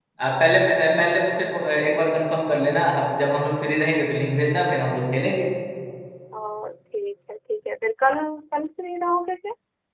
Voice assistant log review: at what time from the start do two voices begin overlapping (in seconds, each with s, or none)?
none